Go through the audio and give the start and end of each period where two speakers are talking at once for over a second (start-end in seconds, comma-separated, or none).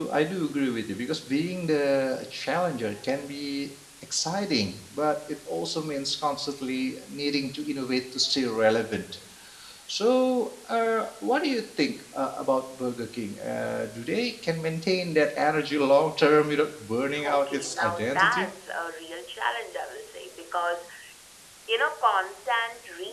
17.2-18.5